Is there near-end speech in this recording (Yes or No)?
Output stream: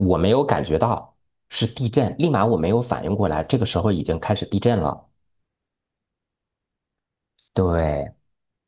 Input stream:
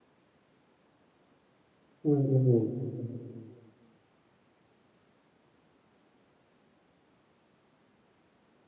Yes